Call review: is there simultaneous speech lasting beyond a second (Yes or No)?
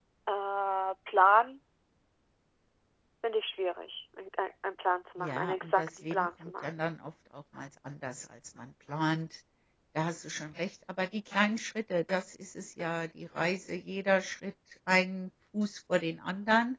Yes